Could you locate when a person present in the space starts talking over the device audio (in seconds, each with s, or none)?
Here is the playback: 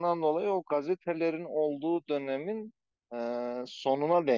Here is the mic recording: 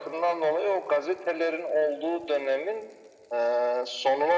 none